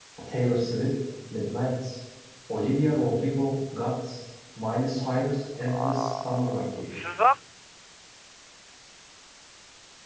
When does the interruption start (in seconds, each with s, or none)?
5.5 s